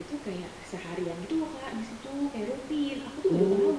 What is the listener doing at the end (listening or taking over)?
taking over